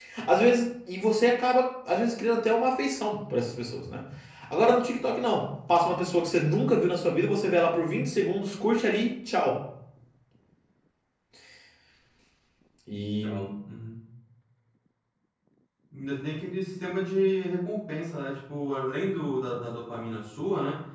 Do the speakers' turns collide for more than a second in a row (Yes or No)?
No